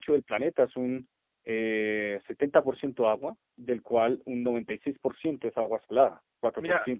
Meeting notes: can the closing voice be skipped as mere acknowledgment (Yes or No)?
No